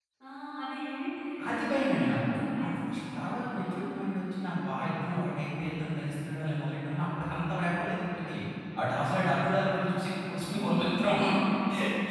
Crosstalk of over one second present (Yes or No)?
Yes